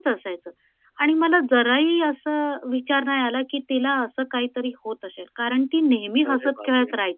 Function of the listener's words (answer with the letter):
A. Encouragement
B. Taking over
A